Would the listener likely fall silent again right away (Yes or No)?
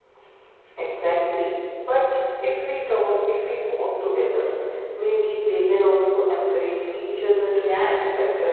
No